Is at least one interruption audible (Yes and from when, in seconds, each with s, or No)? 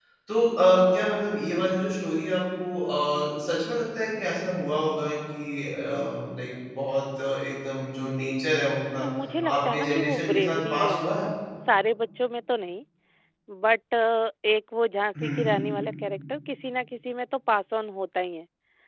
Yes, from 9.7 s